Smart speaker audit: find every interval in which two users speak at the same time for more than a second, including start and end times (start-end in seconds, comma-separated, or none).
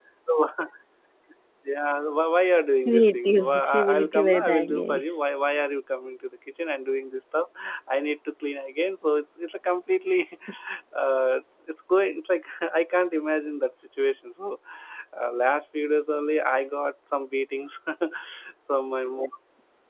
2.9-5.0